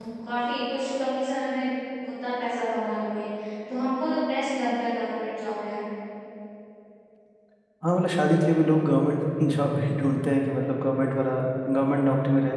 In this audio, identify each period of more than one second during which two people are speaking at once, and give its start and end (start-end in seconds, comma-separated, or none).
none